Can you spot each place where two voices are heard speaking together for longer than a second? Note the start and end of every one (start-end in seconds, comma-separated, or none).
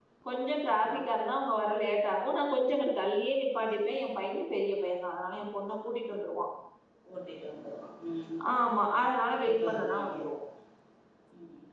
8.6-10.2